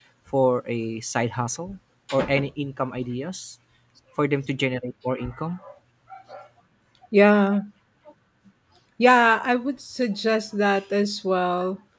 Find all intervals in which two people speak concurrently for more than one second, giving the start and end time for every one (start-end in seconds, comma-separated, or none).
none